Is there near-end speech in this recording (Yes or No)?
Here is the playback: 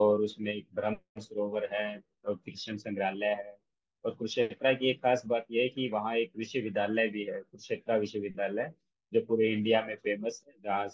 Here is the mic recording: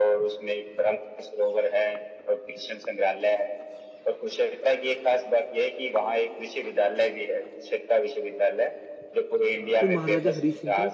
Yes